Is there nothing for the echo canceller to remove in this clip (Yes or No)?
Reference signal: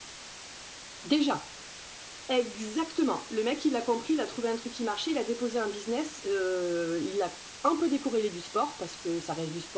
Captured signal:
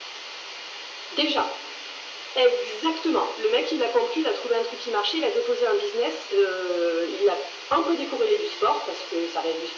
No